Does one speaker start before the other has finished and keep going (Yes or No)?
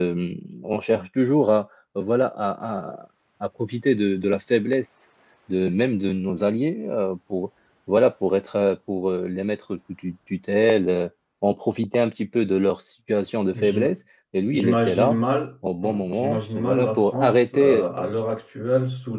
Yes